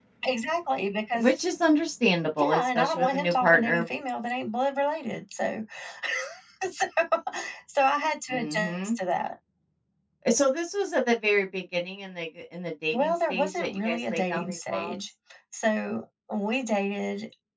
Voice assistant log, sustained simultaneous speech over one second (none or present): present